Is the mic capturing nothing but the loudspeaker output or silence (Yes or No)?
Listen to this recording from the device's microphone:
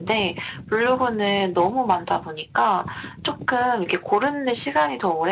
Yes